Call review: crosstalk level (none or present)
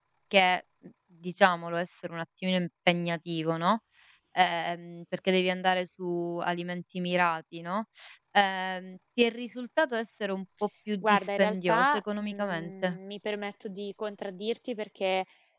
present